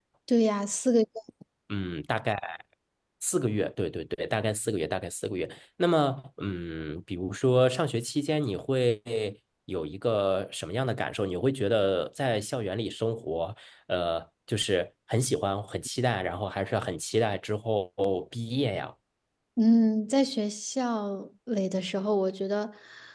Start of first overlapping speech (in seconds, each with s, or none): none